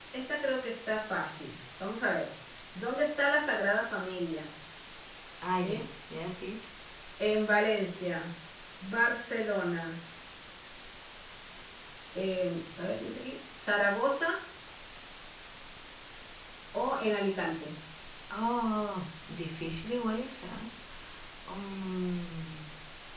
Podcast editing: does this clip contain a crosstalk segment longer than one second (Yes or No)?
No